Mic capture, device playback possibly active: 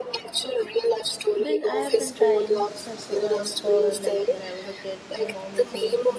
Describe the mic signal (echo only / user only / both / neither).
both